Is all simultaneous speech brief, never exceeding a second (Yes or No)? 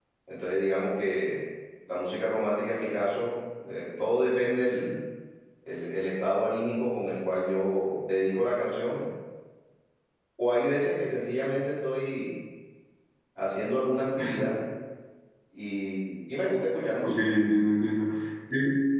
Yes